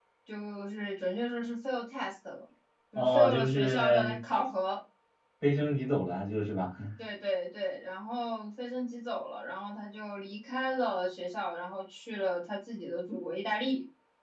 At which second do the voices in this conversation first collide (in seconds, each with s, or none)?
3.0 s